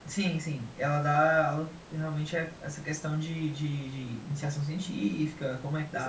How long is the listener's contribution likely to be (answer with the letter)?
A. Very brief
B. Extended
B